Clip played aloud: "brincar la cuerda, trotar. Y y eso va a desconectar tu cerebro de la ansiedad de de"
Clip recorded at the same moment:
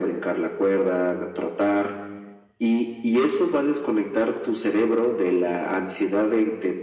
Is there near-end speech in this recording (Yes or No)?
No